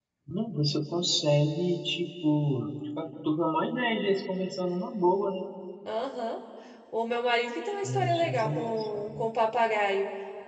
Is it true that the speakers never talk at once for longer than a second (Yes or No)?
No